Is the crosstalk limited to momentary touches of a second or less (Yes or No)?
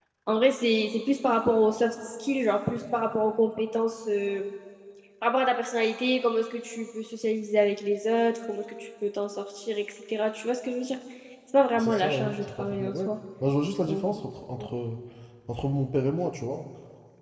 No